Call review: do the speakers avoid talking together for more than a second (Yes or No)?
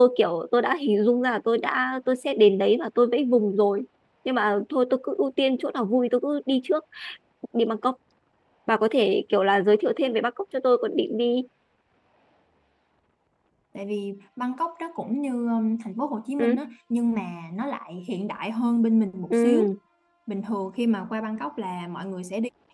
Yes